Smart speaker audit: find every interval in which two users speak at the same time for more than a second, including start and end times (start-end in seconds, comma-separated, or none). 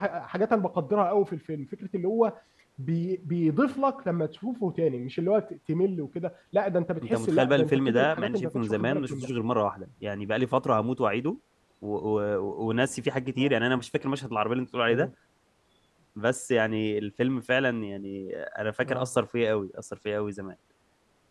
7.0-9.3